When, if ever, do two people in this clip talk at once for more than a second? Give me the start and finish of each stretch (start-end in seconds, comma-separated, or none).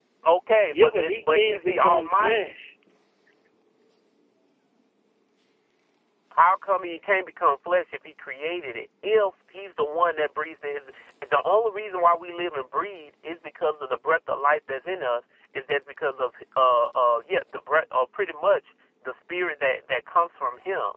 0.7-2.5